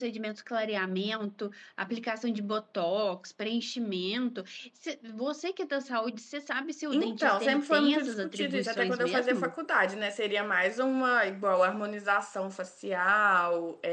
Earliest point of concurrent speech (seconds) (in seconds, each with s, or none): 6.9 s